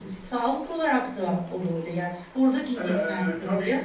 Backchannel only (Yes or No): Yes